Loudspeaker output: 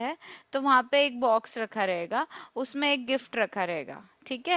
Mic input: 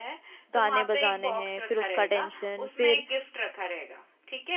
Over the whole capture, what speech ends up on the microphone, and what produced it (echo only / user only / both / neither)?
both